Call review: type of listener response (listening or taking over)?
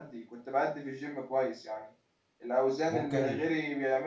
listening